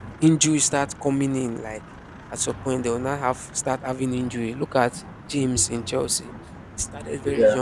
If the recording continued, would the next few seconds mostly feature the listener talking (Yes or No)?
No